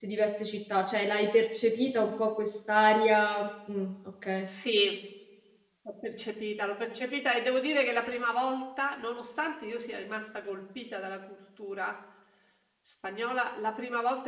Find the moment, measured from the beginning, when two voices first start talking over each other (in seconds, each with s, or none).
none